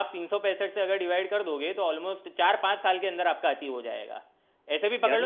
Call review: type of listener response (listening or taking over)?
listening